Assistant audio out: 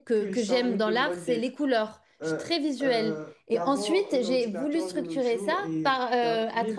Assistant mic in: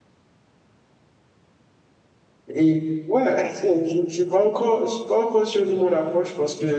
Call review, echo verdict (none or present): none